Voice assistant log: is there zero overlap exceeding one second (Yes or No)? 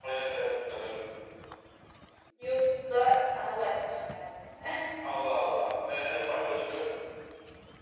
Yes